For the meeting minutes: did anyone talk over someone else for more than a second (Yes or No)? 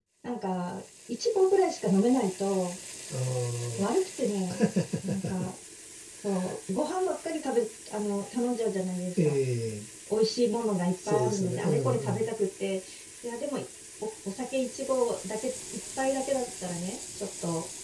Yes